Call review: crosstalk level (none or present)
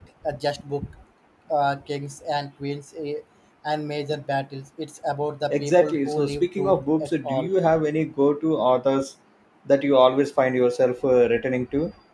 present